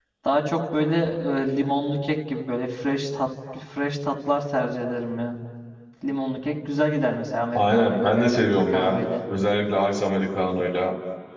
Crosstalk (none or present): present